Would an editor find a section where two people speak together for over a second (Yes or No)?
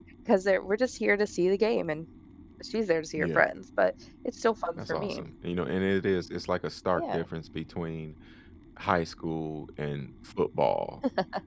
No